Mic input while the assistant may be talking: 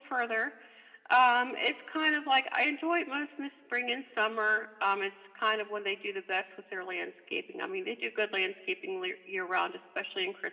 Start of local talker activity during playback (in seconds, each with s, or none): none